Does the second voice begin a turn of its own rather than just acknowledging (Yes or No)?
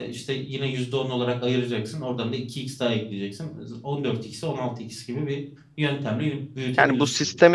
Yes